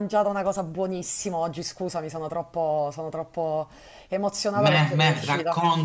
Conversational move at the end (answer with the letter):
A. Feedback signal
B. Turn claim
B